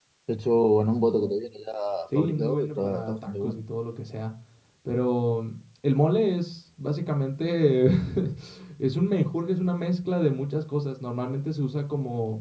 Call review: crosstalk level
present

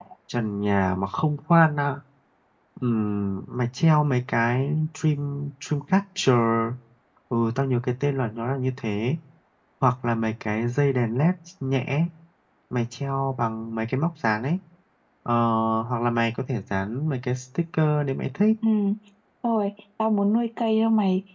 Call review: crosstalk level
none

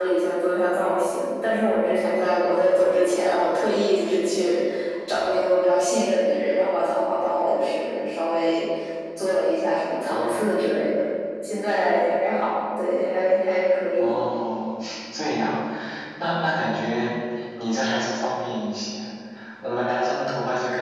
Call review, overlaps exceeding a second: none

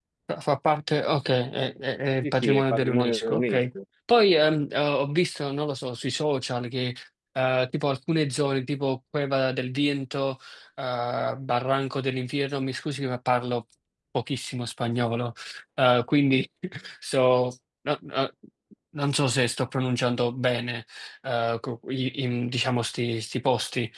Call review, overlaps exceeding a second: present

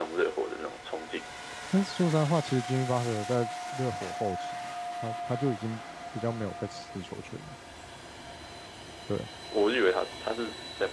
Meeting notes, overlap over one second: none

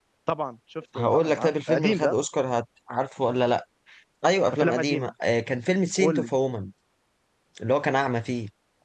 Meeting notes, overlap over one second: present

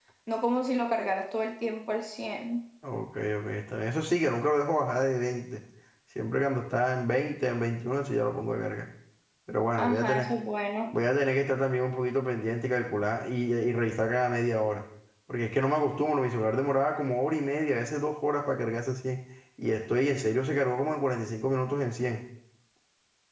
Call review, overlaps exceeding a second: none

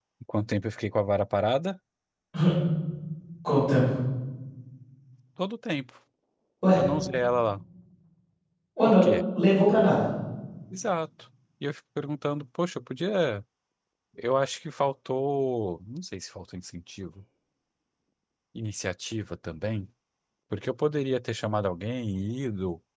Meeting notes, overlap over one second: none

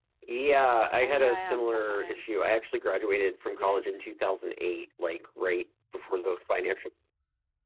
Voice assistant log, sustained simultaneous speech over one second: present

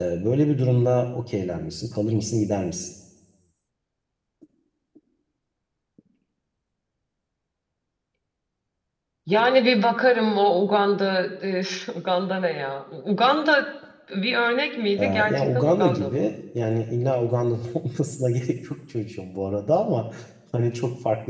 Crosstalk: present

